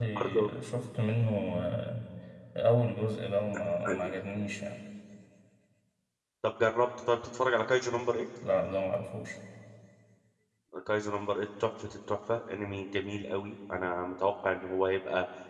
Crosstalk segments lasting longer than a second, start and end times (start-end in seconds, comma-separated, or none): none